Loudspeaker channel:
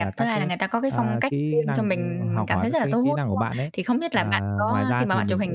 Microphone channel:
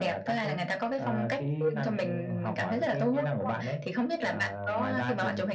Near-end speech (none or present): none